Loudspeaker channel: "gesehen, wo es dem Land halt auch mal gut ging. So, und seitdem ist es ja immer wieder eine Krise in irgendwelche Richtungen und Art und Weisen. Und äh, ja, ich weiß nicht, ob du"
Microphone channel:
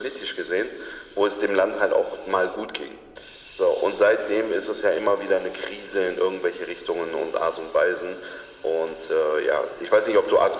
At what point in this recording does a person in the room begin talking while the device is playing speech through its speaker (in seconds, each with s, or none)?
none